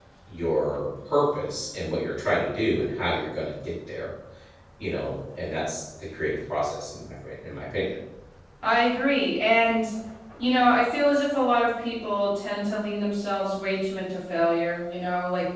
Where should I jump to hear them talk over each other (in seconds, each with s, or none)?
none